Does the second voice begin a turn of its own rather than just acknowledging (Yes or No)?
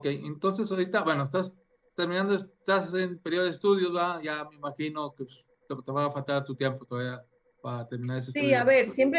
Yes